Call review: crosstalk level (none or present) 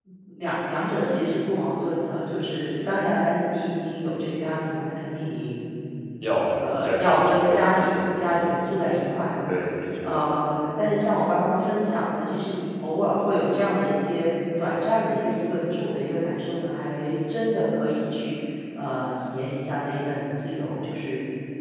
present